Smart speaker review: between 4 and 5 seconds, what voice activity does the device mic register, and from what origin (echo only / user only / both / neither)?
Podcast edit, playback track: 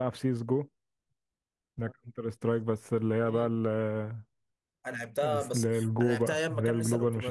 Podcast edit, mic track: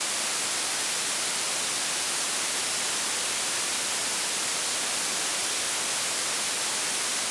neither